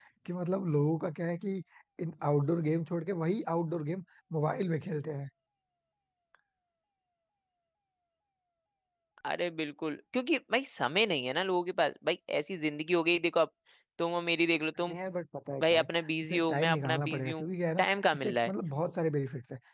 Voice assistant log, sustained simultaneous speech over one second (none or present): present